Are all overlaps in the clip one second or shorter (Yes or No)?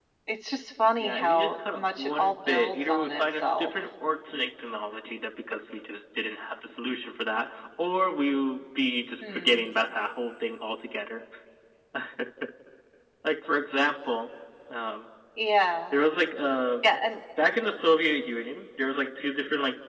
No